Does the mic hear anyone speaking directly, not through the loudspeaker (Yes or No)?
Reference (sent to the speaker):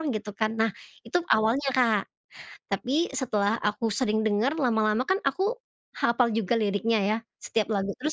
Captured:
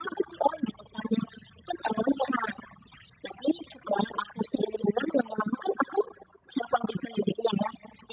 No